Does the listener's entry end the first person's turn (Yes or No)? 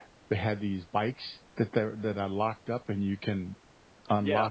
Yes